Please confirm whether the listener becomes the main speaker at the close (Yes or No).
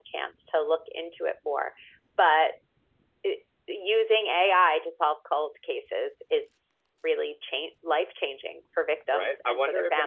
Yes